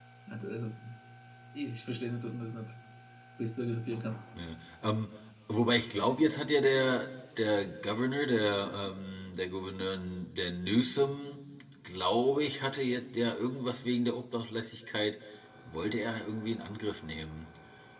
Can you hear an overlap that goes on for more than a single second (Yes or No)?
No